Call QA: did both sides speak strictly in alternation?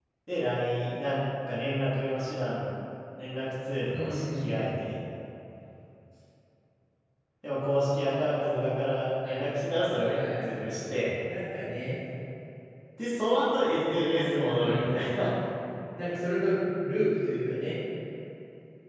No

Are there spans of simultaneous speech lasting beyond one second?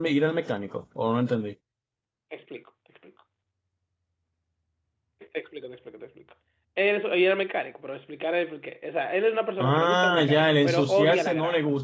Yes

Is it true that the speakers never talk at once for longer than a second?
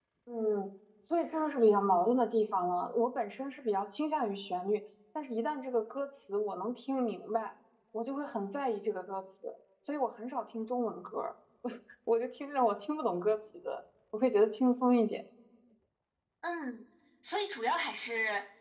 Yes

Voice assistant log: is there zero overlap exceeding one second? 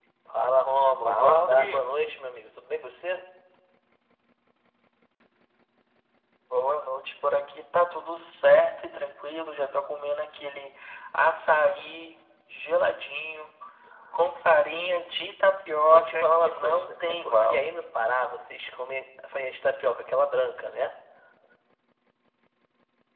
No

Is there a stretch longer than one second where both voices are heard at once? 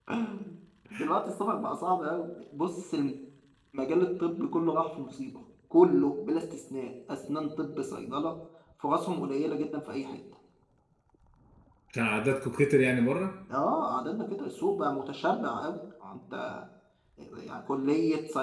No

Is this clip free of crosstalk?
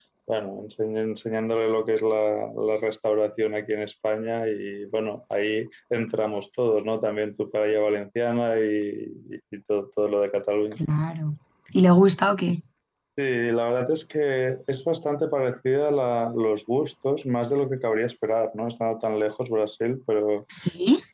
Yes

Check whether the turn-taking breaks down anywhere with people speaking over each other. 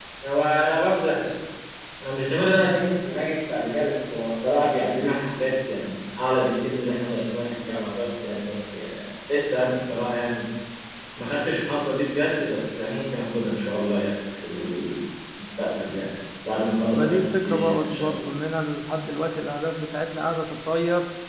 Yes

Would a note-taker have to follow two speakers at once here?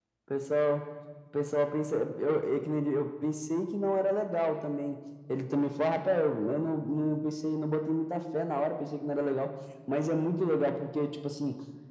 No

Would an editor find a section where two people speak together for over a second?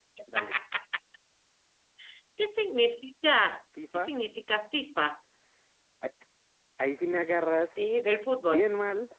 No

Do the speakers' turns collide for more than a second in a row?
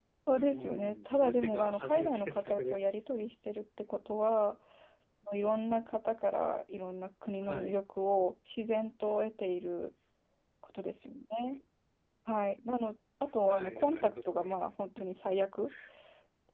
Yes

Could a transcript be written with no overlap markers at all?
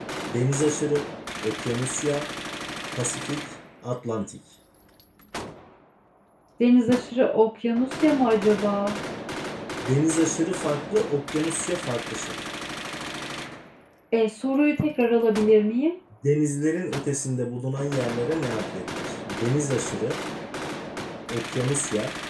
Yes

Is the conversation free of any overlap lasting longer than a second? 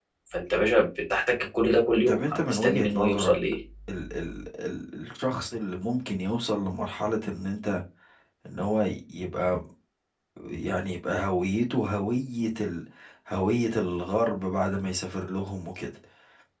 No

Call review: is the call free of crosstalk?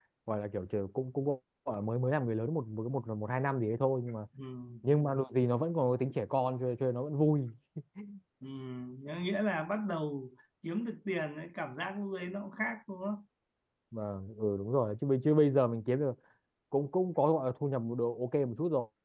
Yes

